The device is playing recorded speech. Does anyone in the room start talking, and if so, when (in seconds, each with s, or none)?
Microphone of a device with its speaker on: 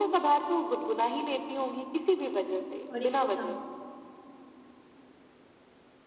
2.9 s